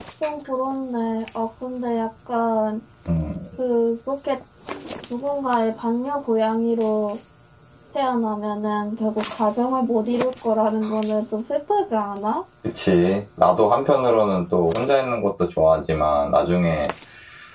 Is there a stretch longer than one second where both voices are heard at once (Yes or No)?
No